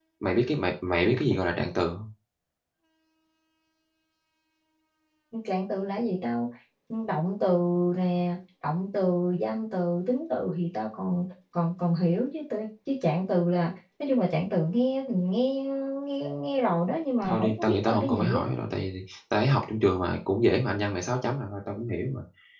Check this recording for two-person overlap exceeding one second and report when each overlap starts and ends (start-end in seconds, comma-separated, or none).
17.3-18.5